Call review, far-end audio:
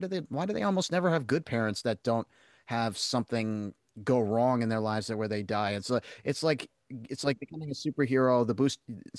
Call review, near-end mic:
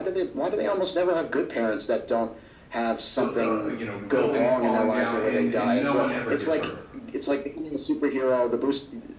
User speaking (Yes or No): Yes